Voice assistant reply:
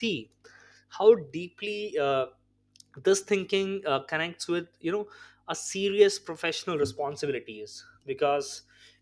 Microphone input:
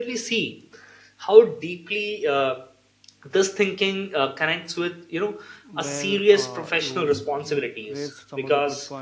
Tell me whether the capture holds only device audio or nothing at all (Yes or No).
No